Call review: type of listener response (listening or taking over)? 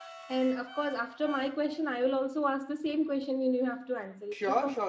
taking over